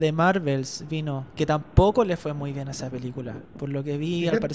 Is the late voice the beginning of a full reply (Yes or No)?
No